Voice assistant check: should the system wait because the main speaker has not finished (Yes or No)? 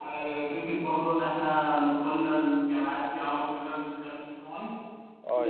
No